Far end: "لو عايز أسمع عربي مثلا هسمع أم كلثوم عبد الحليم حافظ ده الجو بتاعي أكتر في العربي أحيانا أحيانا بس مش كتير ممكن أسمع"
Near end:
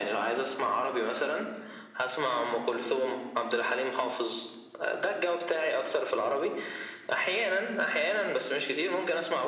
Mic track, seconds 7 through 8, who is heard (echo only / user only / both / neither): echo only